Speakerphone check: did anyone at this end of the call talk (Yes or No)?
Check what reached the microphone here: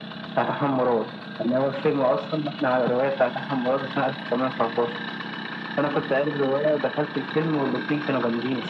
No